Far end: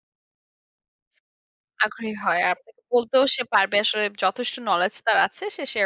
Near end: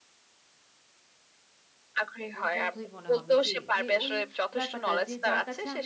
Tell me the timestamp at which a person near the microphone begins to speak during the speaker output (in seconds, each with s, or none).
2.4 s